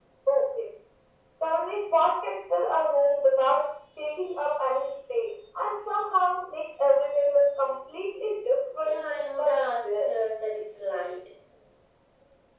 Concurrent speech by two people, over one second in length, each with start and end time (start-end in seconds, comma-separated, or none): 8.8-10.1